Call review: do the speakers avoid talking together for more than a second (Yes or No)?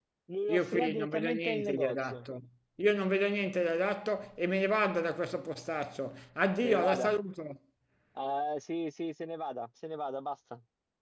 No